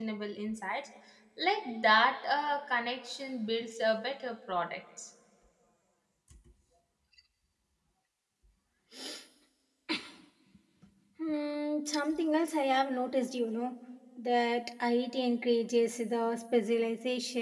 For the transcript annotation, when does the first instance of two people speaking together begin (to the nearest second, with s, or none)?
none